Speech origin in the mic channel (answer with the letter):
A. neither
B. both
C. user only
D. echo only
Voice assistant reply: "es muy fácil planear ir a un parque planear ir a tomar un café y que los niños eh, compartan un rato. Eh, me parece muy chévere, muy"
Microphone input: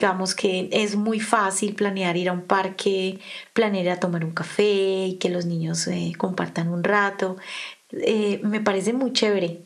D